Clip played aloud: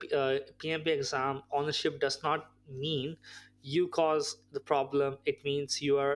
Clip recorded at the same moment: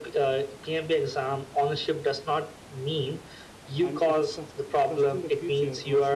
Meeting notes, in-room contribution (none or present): present